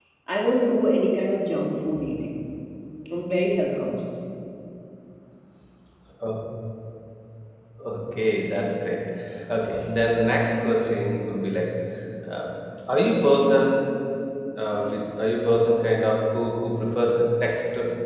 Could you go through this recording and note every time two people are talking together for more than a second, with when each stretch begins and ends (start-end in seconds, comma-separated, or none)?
none